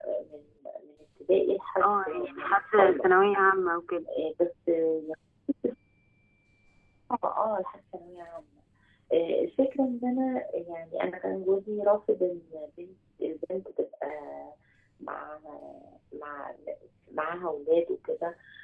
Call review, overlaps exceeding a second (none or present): present